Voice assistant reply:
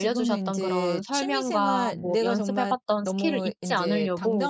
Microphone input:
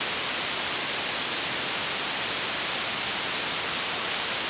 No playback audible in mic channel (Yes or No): Yes